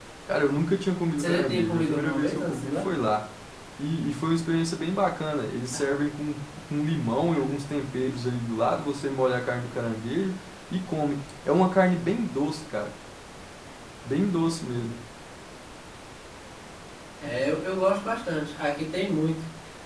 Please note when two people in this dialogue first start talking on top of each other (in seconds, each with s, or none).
1.2 s